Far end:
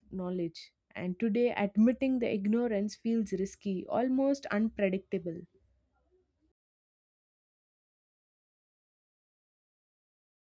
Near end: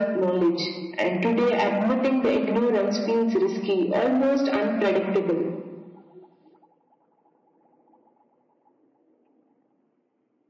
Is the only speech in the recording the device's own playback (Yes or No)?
Yes